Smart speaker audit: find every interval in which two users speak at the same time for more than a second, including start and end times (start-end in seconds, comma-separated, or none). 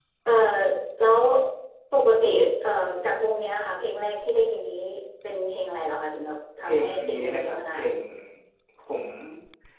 6.7-7.9